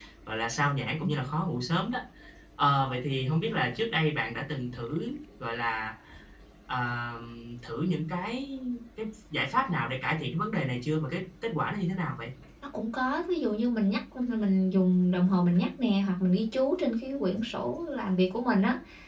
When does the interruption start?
none

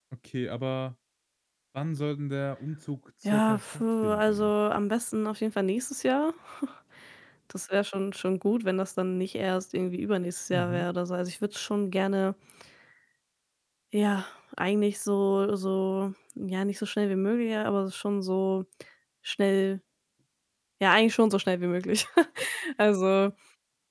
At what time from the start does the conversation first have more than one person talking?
3.2 s

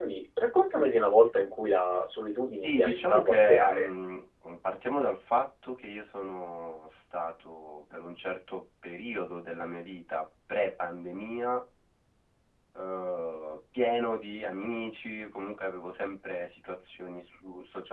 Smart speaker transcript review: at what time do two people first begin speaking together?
2.6 s

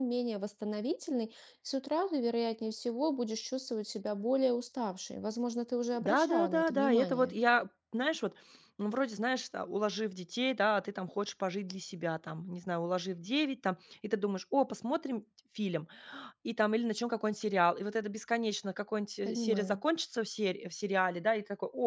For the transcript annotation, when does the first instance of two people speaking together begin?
6.0 s

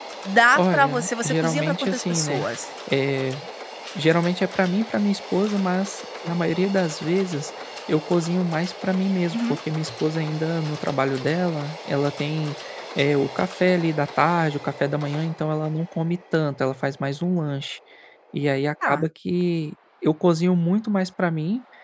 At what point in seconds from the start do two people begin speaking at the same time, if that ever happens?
0.6 s

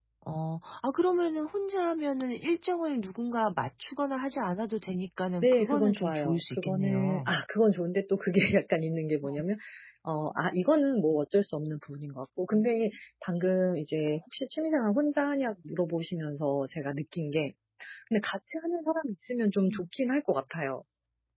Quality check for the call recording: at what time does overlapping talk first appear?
5.4 s

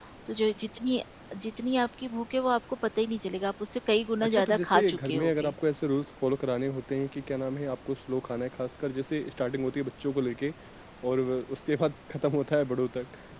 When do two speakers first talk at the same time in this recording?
4.2 s

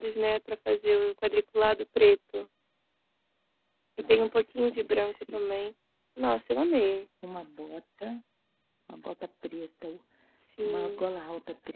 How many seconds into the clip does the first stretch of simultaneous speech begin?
4.0 s

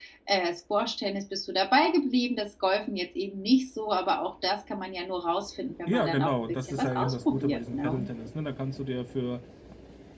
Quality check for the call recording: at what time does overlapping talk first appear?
5.9 s

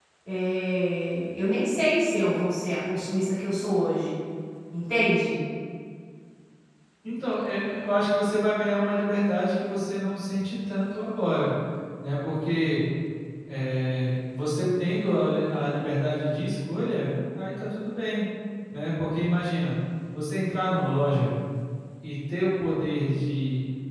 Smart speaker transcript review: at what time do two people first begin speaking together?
none

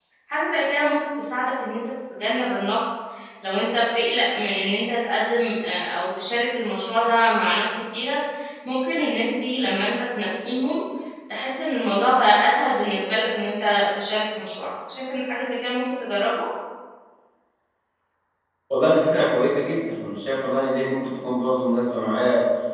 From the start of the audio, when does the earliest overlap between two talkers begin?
none

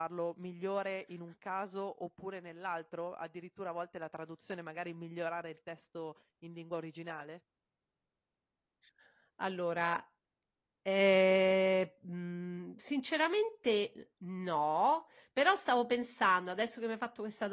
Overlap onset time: none

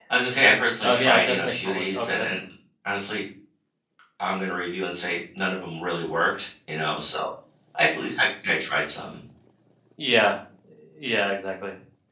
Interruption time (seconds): 0.8 s

